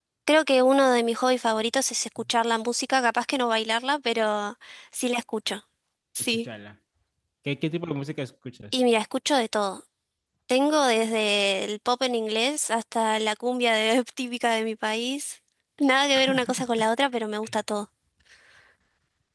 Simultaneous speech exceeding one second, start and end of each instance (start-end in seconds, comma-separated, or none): none